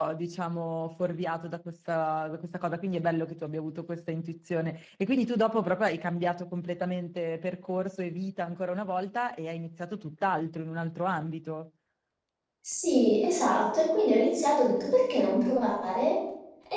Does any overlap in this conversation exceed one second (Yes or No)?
No